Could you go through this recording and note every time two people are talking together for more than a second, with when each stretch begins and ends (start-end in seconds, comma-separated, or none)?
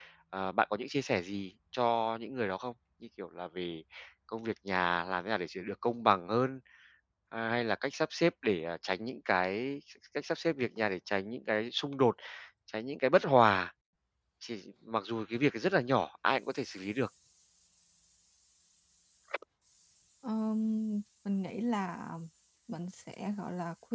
none